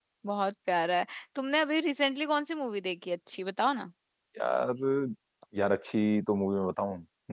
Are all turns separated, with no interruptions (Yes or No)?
Yes